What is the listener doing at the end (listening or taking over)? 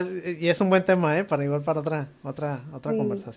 taking over